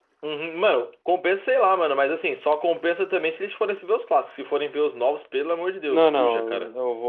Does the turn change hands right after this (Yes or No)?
Yes